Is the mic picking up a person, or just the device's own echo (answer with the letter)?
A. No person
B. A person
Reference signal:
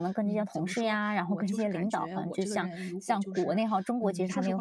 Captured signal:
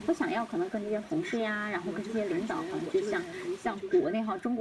A